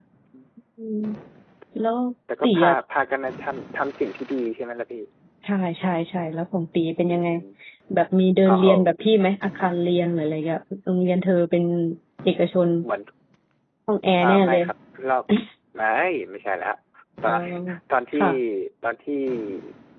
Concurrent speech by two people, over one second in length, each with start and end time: none

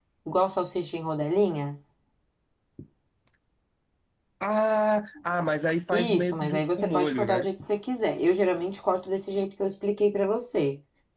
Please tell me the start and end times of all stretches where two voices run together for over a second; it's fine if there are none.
5.9-7.5

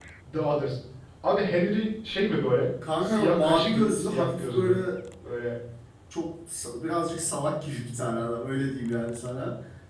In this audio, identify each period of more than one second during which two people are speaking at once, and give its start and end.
3.0-4.8

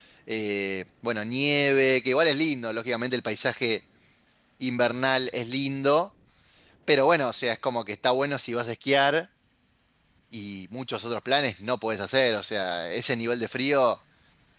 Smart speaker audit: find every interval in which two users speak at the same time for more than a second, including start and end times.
none

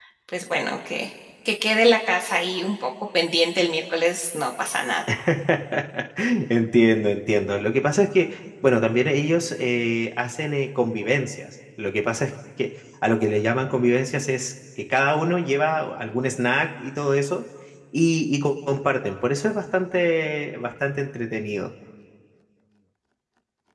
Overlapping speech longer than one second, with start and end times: none

